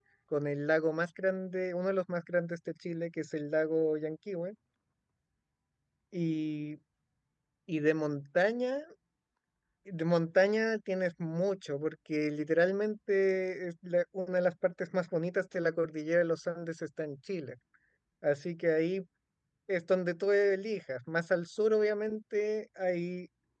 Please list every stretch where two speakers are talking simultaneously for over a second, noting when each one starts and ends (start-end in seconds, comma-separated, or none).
none